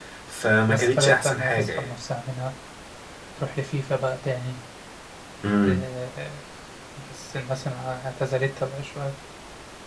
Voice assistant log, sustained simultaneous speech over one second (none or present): present